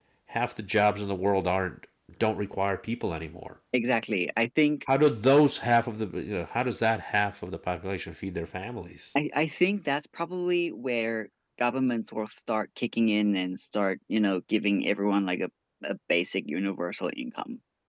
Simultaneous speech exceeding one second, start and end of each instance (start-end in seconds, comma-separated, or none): none